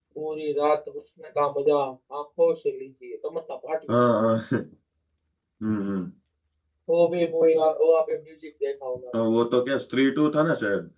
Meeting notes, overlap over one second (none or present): none